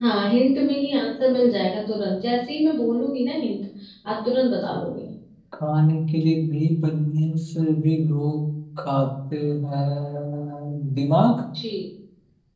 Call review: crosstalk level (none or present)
none